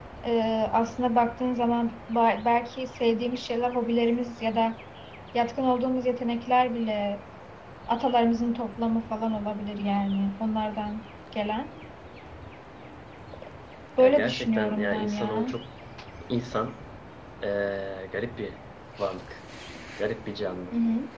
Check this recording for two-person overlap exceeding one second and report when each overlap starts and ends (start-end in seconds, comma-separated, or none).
14.0-15.5